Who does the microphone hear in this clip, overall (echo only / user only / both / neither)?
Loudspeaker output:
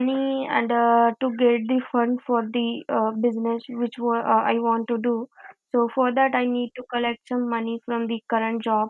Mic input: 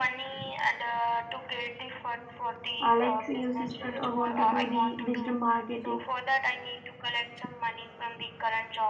both